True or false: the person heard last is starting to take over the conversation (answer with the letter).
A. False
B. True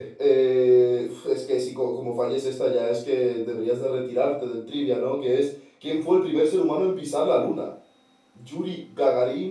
A